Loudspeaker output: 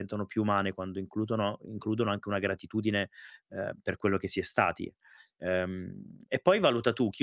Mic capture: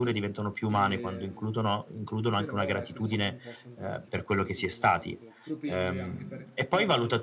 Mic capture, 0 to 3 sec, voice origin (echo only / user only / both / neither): both